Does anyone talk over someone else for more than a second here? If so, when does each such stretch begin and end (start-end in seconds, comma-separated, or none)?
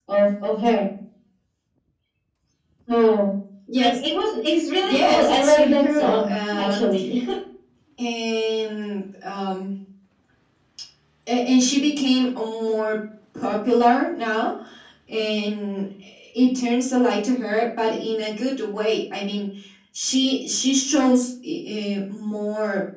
4.8-6.8